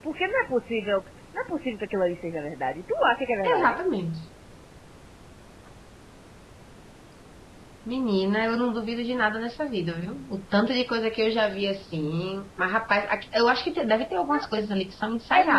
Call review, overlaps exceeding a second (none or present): none